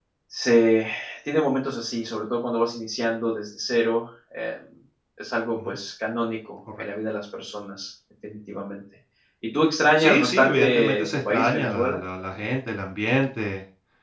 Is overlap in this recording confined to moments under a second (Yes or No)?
No